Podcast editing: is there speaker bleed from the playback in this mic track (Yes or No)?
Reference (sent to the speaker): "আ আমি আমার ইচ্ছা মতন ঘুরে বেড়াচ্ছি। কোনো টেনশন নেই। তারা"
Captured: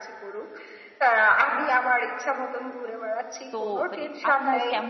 Yes